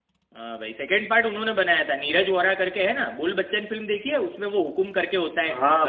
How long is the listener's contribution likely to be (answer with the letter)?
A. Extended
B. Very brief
A